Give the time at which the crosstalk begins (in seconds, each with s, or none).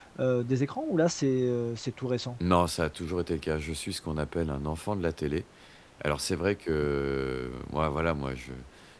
none